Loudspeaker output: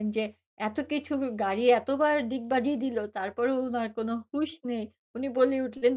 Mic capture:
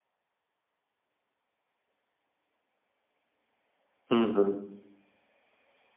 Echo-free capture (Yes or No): Yes